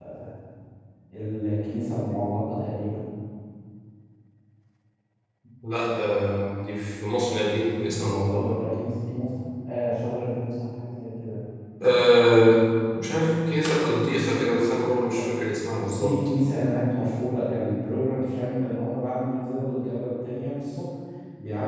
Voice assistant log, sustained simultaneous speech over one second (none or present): none